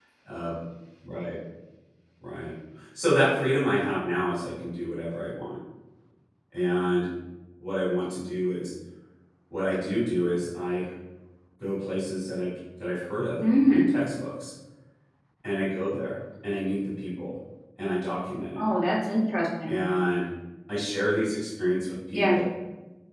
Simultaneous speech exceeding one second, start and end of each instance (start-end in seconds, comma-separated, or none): none